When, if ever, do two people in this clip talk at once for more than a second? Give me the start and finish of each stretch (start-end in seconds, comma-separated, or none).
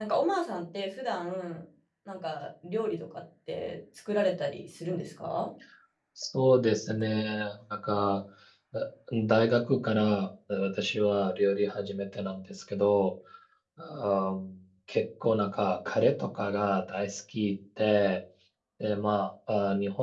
none